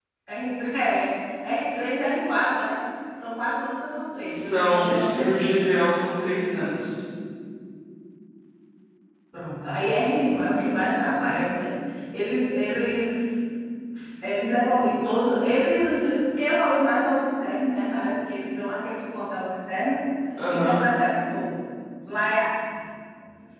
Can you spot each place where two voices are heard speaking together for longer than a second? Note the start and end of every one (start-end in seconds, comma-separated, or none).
4.3-5.7